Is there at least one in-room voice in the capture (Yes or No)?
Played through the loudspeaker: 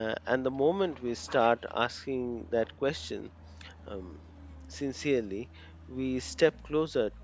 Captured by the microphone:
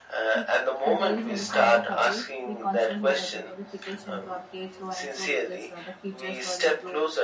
Yes